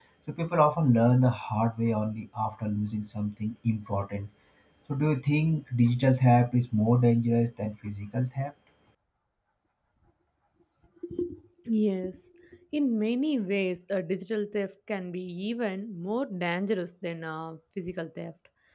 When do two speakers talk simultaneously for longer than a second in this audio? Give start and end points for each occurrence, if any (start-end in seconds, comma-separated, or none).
none